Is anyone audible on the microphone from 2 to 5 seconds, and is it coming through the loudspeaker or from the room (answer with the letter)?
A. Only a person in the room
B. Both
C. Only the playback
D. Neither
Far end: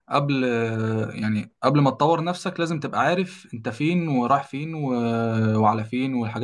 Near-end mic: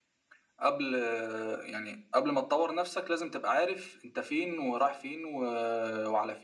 C